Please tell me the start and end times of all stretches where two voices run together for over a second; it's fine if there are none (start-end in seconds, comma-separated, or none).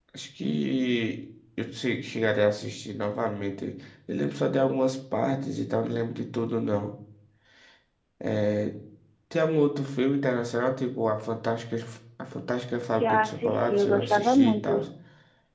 12.9-14.8